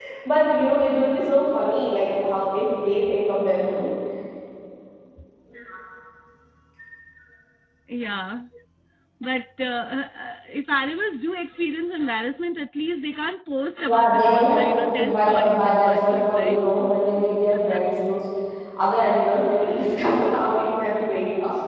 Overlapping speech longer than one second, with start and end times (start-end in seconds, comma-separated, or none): 13.9-16.6